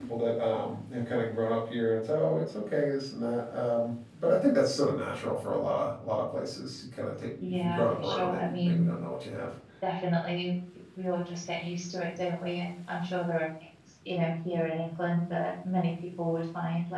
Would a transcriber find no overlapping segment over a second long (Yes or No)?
No